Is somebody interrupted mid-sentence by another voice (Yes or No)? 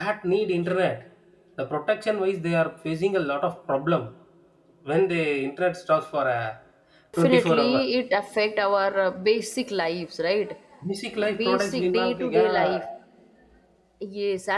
Yes